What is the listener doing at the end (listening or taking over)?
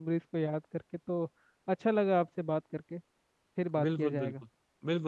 taking over